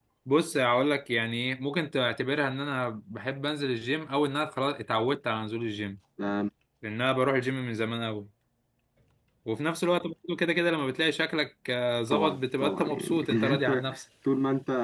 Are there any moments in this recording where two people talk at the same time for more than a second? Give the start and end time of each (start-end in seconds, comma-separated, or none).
12.1-13.8